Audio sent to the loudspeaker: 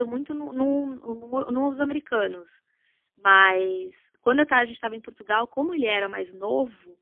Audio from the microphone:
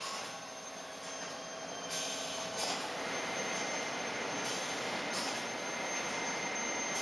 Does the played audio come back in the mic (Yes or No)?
No